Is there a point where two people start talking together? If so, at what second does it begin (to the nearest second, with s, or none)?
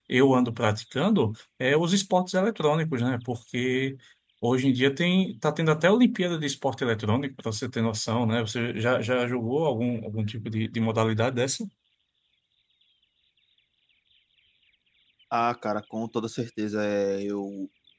none